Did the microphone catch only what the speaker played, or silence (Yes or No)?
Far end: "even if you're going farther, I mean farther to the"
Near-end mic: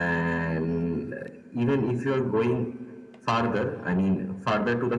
Yes